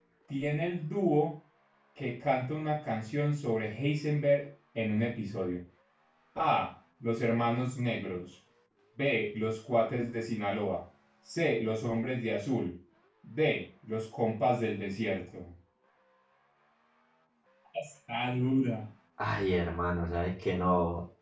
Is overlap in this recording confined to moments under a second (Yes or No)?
Yes